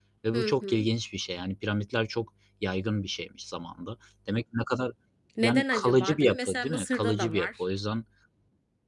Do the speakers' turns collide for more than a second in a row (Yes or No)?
Yes